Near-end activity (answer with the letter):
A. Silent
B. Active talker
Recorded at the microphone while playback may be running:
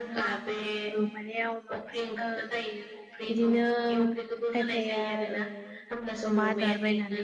B